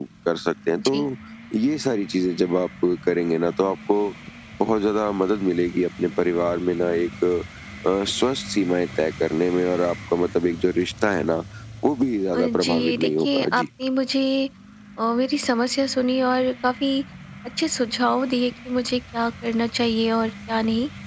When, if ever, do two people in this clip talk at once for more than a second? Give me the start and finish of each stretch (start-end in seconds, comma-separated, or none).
12.3-13.7